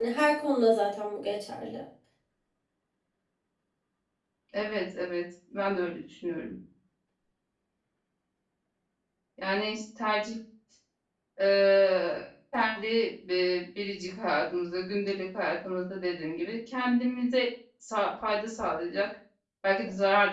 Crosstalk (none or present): none